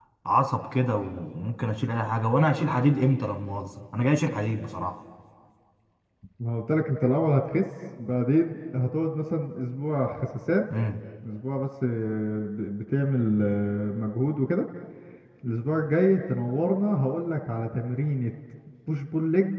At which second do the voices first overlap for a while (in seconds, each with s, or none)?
none